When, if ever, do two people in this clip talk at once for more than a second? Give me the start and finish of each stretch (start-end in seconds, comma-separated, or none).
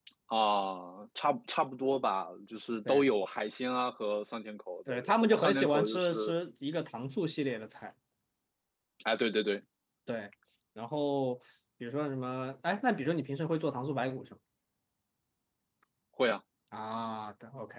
4.9-6.3